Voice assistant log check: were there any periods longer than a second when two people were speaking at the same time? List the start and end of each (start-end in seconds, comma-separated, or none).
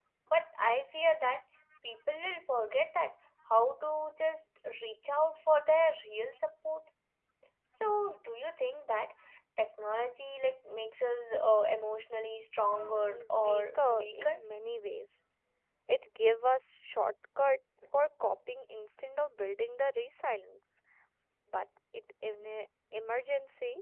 12.7-14.4